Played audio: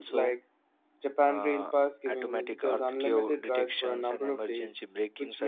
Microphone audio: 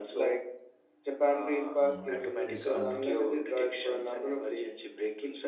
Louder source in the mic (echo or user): echo